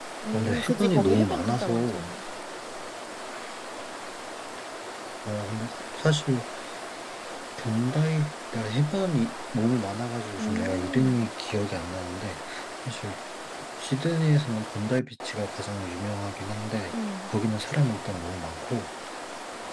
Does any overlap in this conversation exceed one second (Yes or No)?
Yes